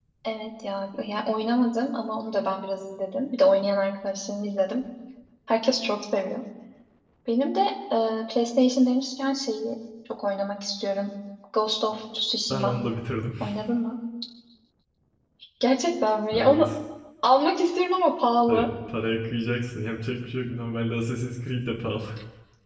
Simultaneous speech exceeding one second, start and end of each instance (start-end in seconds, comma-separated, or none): none